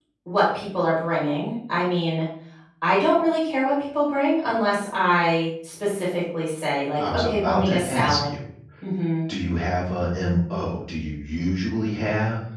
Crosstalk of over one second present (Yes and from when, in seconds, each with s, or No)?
Yes, from 7.0 s